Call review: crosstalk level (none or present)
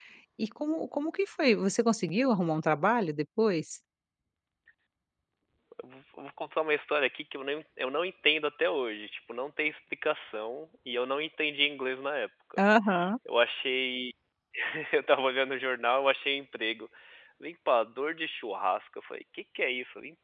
none